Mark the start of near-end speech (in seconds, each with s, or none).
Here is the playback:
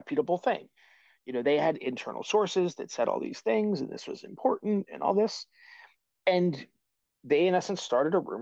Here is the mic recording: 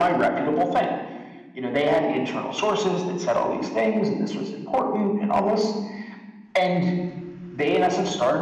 none